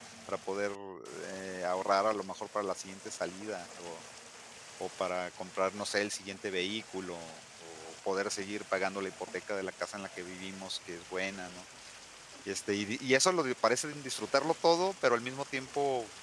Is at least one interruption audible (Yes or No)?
No